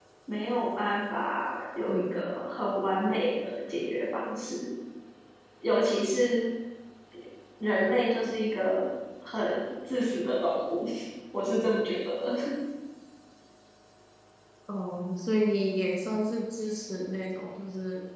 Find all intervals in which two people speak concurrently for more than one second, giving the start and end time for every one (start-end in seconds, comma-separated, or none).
none